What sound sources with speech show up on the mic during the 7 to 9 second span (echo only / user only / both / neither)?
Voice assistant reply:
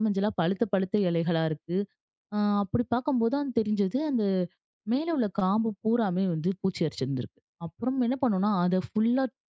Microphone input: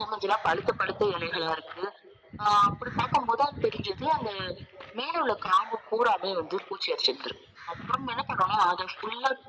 echo only